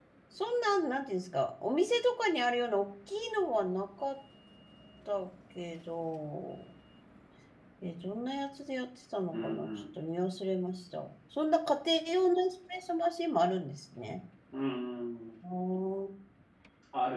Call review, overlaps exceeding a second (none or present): none